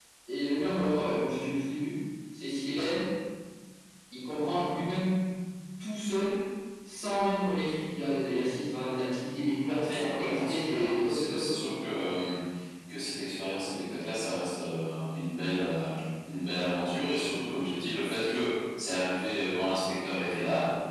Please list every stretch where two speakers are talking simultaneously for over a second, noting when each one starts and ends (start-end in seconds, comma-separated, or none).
9.7-11.6